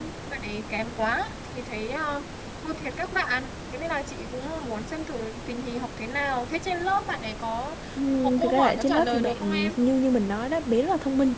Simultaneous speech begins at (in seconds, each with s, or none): 8.1 s